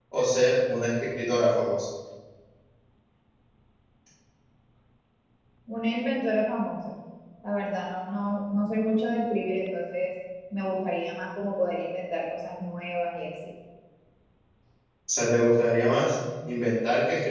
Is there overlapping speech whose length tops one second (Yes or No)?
No